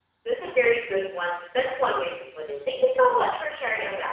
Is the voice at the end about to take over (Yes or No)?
Yes